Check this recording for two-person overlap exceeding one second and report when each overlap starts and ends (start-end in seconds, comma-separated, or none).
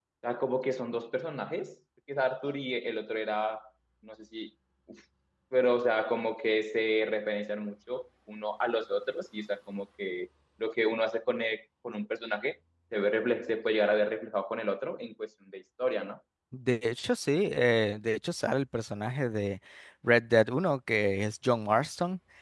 none